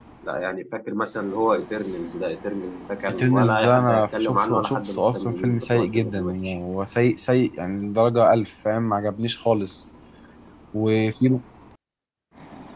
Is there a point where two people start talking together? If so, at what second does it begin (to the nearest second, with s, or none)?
3 s